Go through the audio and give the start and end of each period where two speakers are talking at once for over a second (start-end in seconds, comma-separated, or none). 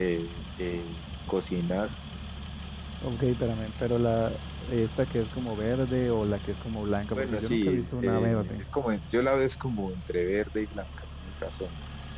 7.1-8.7